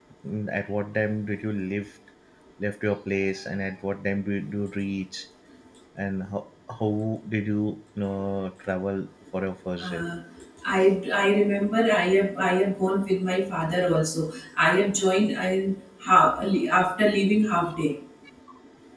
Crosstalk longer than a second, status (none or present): none